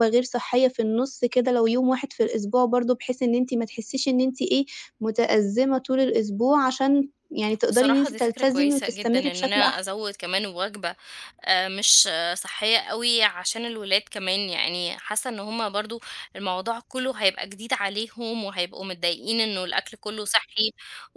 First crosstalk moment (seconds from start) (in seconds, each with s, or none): 7.7 s